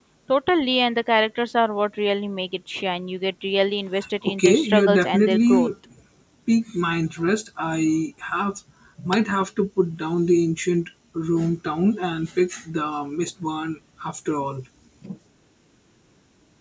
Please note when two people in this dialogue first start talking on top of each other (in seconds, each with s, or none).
4.2 s